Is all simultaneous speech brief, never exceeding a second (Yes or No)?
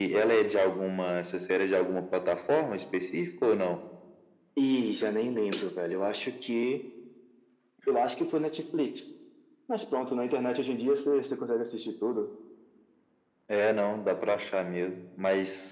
Yes